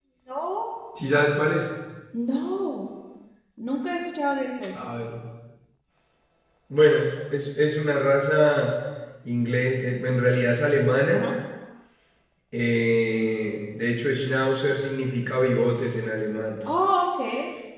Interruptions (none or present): none